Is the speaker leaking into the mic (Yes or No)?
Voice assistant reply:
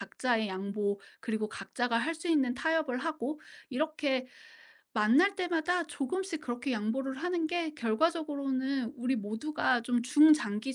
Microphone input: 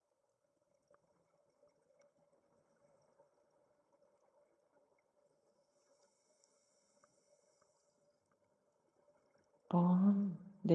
No